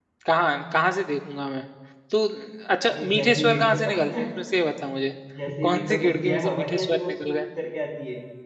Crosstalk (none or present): present